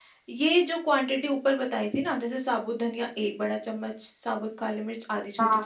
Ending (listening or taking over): listening